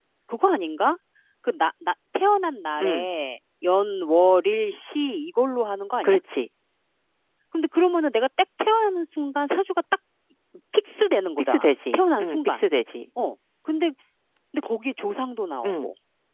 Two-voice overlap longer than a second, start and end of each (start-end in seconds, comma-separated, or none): 11.4-12.6